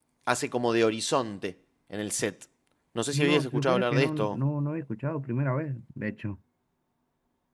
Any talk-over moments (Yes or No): Yes